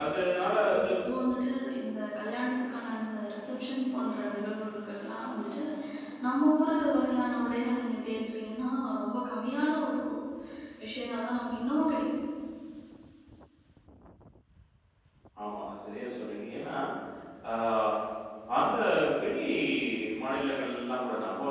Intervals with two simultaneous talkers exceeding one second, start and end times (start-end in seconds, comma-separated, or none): none